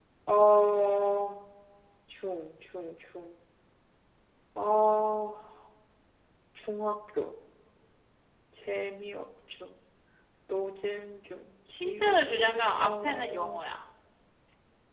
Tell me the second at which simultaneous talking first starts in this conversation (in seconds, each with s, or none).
11.8 s